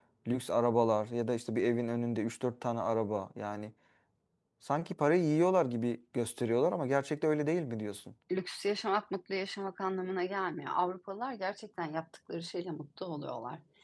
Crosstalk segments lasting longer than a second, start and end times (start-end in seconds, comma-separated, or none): none